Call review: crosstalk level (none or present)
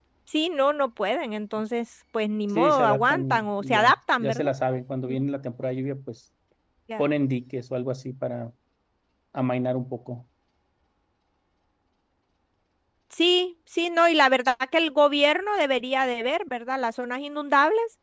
present